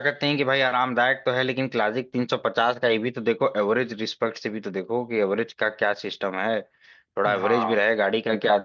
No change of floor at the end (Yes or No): Yes